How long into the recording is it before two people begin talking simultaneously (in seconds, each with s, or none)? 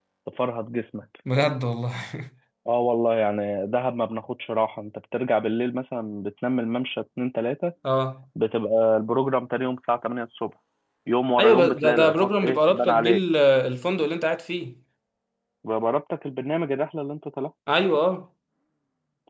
11.4 s